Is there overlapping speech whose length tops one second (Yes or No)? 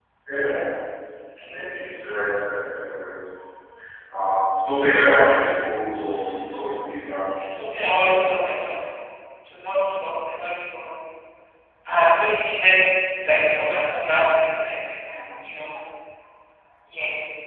Yes